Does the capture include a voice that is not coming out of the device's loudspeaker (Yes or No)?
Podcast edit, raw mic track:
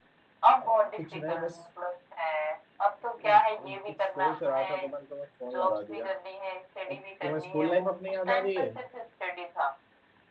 Yes